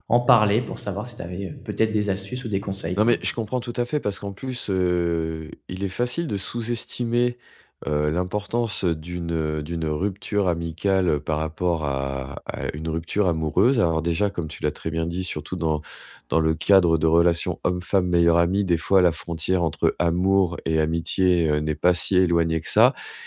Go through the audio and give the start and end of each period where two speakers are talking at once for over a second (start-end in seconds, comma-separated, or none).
none